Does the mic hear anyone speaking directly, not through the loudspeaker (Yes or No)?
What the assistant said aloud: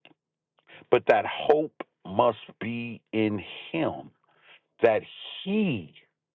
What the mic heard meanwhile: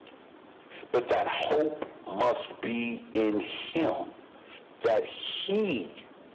No